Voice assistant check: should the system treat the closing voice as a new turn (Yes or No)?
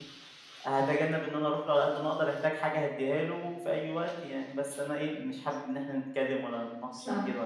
No